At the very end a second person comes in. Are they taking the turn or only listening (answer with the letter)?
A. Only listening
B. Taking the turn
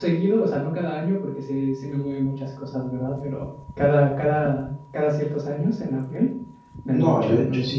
B